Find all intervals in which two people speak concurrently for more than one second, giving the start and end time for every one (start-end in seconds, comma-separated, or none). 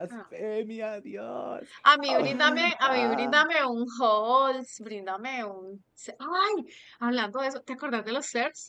2.1-3.4